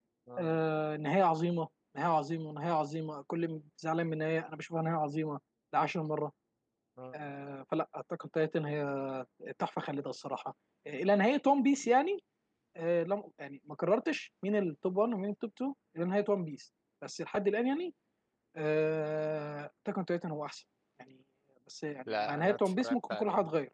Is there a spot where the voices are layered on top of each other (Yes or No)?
Yes